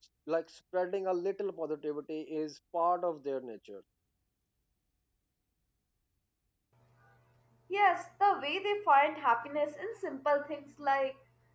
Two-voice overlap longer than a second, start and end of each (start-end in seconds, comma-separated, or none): none